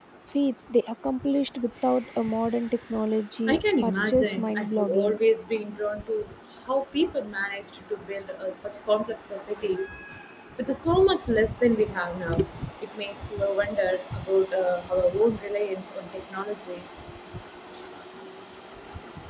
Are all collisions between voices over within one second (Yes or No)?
No